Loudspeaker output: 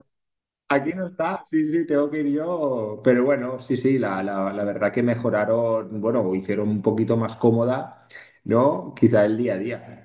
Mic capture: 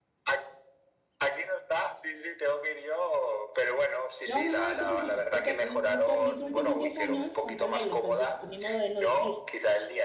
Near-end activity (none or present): present